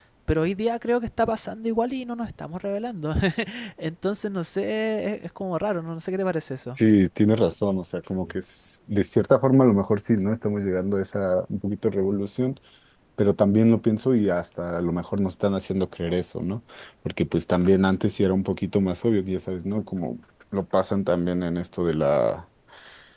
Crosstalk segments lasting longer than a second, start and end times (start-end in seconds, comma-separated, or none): none